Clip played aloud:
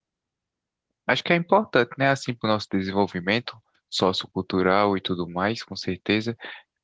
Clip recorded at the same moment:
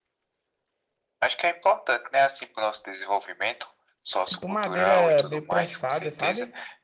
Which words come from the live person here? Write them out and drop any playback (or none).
Tipo madeira meio prensada, sabe?